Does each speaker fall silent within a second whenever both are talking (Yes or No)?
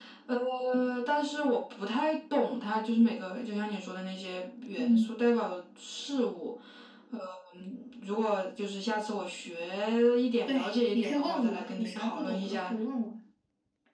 No